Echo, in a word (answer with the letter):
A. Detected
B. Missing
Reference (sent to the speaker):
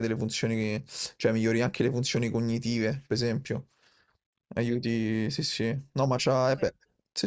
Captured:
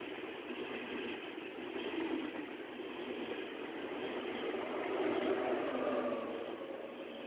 B